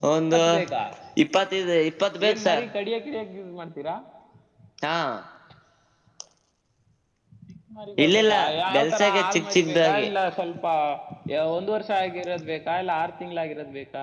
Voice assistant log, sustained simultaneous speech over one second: present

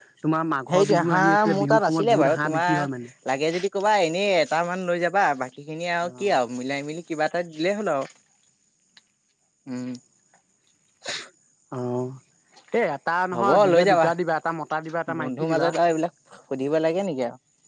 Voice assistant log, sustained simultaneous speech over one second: present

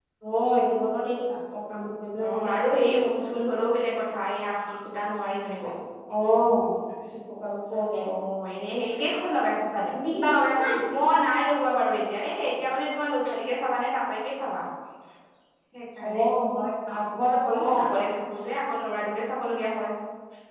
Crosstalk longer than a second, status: none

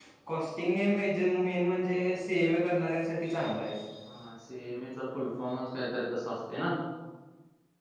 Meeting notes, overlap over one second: none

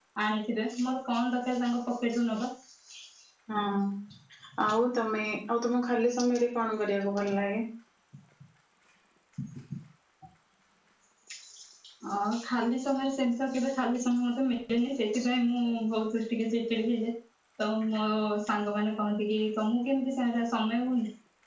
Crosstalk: none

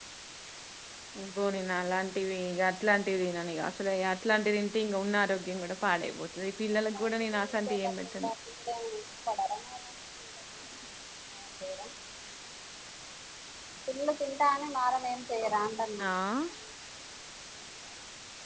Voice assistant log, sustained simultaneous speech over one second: present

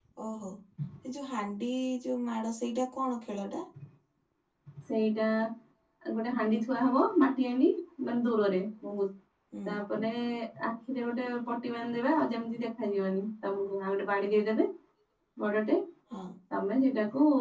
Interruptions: none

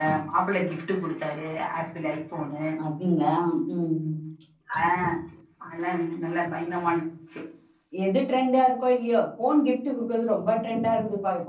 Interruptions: none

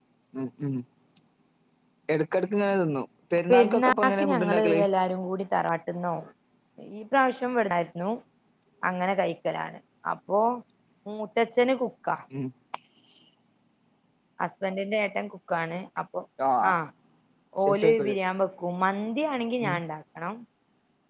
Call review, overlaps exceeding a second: present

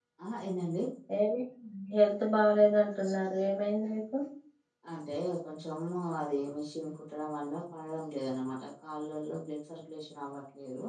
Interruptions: none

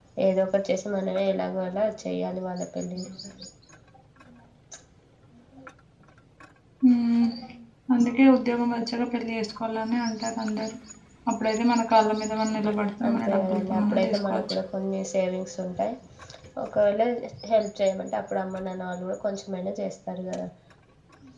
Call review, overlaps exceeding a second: present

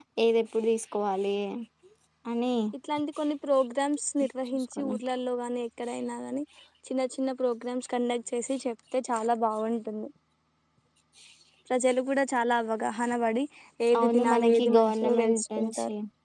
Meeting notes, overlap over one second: present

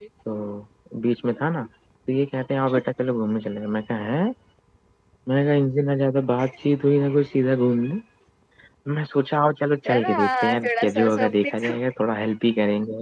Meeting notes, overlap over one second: present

